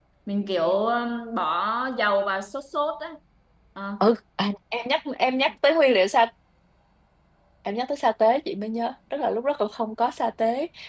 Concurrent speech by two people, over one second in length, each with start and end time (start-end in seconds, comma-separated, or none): none